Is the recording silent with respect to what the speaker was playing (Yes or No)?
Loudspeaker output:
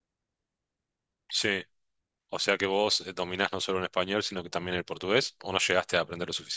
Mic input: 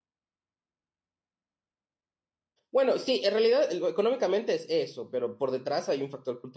Yes